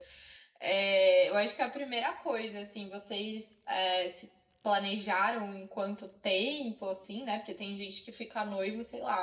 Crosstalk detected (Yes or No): No